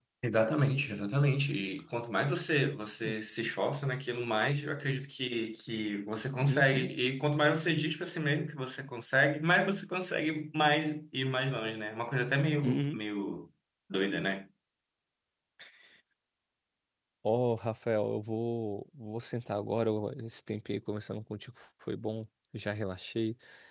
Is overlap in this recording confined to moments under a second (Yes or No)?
Yes